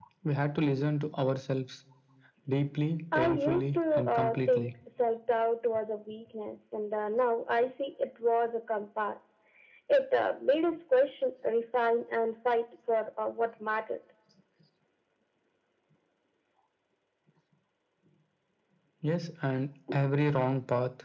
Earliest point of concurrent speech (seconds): 3.2 s

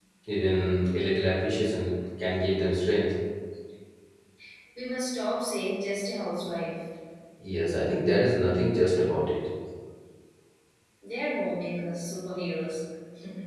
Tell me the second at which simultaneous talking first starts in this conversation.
none

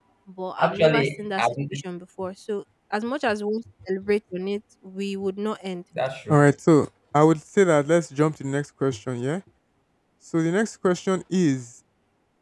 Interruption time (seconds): 0.6 s

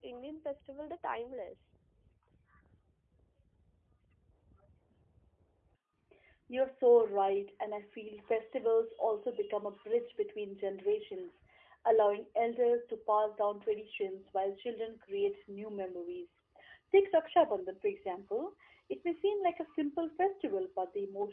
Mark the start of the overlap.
none

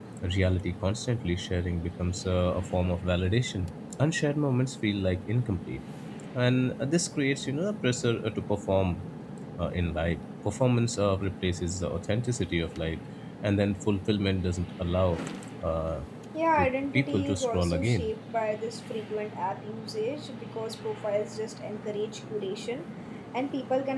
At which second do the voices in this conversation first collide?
16.6 s

